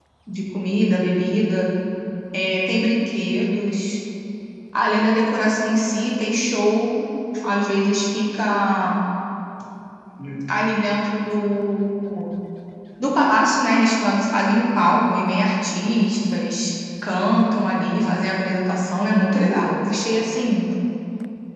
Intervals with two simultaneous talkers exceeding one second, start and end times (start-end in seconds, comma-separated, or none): none